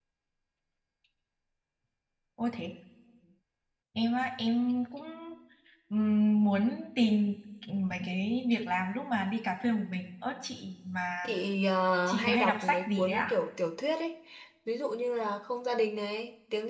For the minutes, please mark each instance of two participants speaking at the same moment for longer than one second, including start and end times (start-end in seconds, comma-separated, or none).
12.1-13.3